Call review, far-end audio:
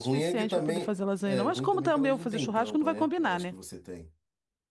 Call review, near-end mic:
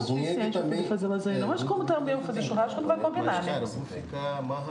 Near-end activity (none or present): present